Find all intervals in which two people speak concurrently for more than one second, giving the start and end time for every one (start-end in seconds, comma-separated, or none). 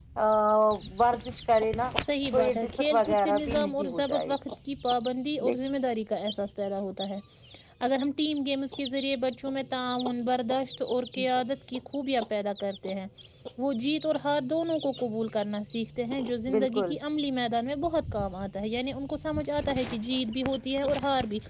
2.3-4.3